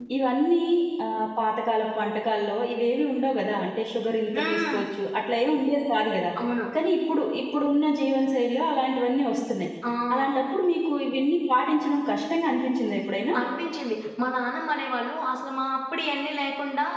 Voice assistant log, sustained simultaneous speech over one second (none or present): none